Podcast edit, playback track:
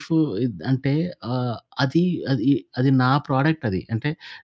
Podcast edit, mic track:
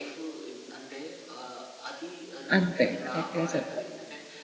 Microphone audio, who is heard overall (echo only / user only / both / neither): both